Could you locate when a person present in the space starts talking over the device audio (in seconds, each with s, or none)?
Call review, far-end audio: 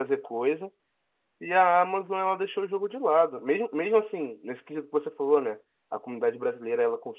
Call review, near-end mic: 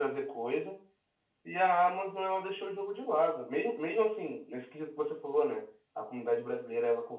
none